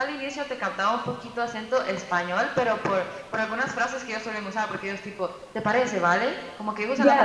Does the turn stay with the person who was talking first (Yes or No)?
No